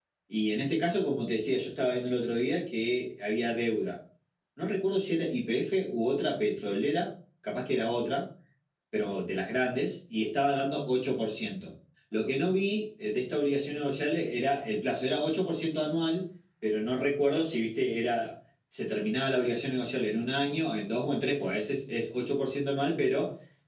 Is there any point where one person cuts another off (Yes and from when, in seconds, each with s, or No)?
No